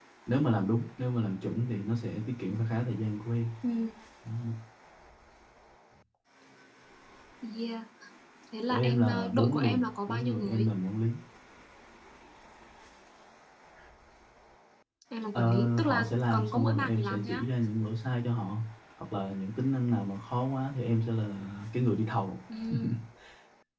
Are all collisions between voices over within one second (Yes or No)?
No